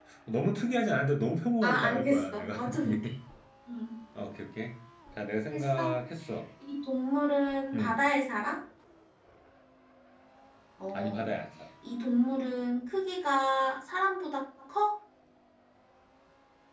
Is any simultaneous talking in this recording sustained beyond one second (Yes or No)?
Yes